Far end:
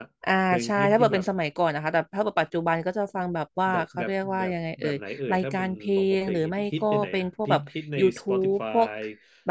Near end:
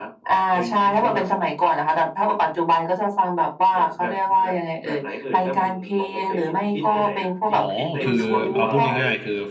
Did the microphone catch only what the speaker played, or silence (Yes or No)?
No